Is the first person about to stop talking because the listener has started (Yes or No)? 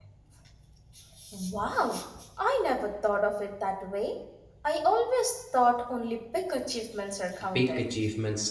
Yes